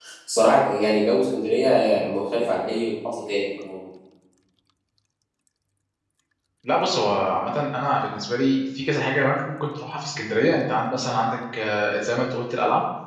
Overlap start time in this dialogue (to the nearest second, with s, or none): none